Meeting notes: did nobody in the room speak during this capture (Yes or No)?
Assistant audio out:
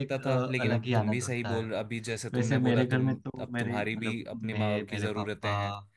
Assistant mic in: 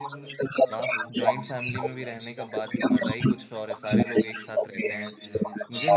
No